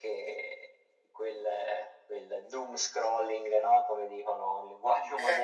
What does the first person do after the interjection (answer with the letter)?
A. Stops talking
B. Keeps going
B